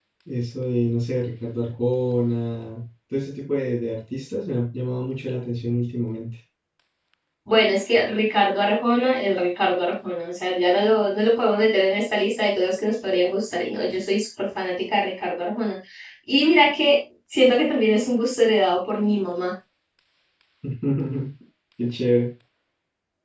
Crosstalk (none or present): none